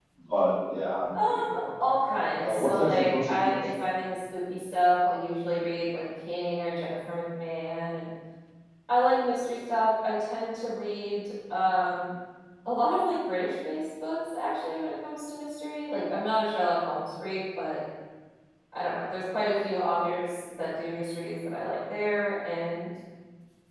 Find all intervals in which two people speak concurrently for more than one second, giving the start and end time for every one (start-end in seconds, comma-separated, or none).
1.1-3.6